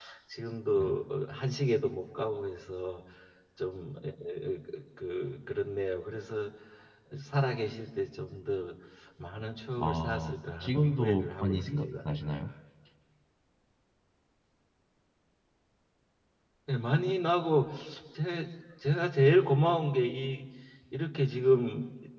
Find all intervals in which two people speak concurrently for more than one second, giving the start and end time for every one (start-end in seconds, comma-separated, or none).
9.8-11.9